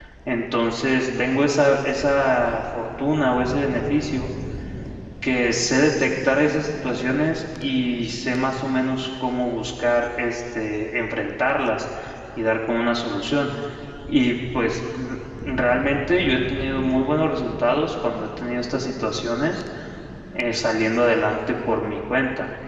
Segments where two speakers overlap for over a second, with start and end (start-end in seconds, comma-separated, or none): none